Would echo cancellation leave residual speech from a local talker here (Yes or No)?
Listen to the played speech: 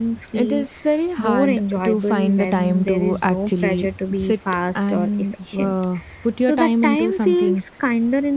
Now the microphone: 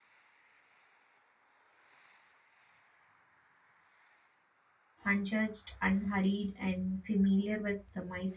Yes